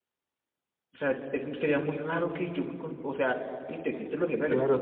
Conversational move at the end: taking over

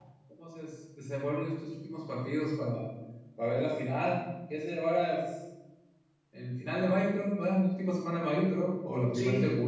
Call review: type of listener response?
taking over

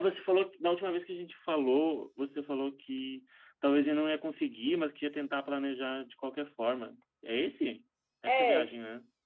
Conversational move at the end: taking over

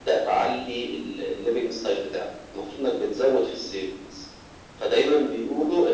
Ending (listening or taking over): listening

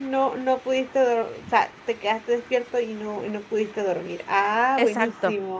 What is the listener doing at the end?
taking over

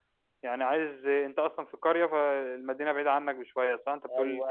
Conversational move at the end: taking over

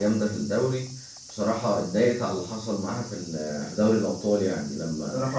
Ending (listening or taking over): taking over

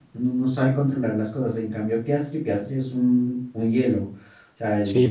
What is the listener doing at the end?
taking over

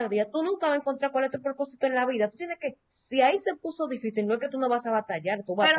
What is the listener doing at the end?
taking over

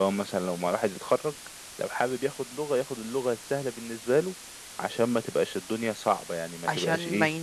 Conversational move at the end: taking over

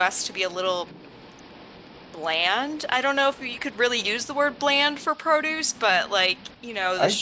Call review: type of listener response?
listening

